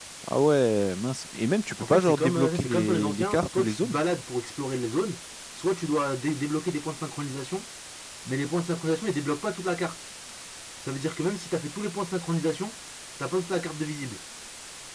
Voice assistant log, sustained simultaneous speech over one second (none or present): present